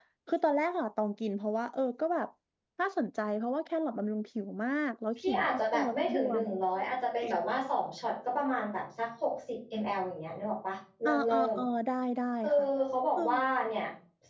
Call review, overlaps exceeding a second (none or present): present